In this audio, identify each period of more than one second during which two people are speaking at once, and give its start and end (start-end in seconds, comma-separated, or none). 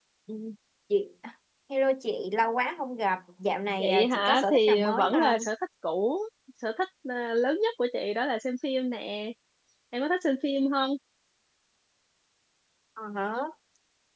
3.8-5.5